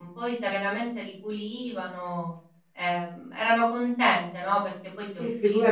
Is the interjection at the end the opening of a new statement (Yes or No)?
Yes